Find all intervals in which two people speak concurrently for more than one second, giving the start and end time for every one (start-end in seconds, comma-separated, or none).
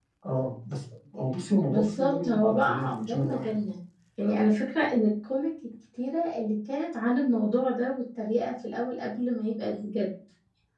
1.7-3.6